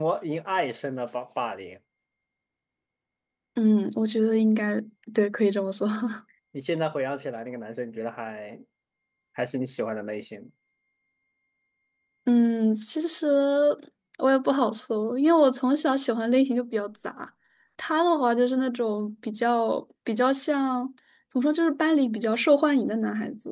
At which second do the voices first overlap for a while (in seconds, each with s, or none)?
none